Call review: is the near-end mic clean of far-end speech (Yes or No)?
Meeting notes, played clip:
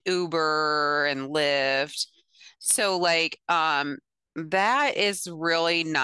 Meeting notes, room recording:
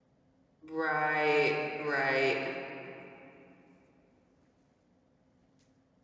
Yes